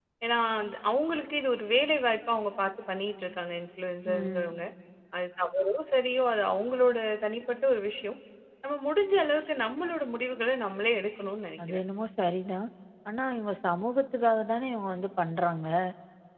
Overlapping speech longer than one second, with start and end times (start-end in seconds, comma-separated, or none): none